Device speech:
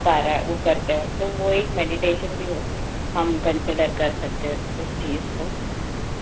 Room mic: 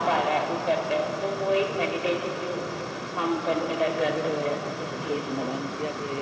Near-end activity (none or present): present